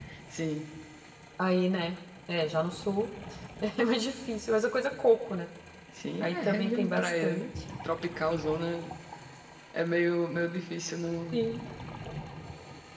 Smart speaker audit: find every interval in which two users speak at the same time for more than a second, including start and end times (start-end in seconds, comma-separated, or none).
6.2-7.5